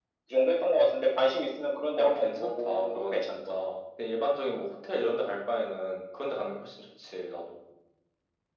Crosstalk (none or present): present